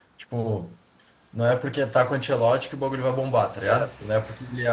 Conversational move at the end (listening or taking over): listening